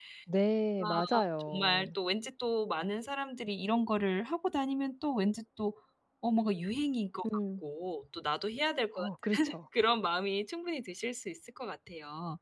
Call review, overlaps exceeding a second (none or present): none